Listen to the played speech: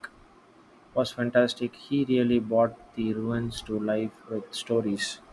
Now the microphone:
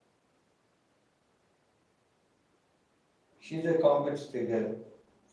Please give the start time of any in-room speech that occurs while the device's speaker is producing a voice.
3.4 s

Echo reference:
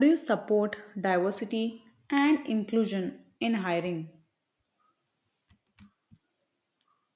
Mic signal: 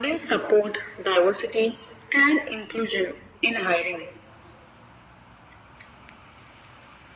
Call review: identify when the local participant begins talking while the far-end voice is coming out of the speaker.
none

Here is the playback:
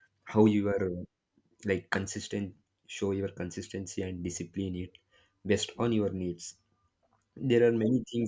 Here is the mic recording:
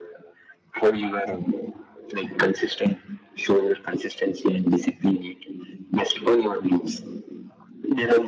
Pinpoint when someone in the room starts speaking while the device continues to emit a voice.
none

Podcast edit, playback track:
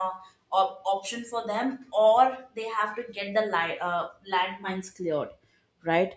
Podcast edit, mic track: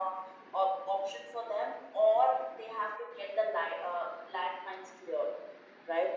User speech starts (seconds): none

